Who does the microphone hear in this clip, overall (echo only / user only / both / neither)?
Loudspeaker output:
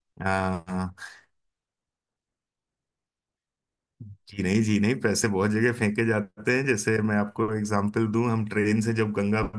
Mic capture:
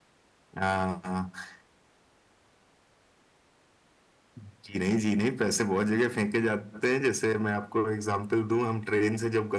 echo only